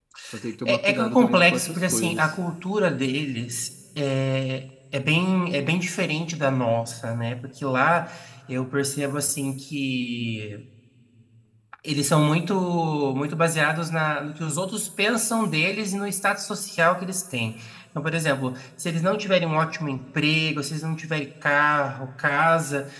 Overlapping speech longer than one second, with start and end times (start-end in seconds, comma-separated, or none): 0.6-2.3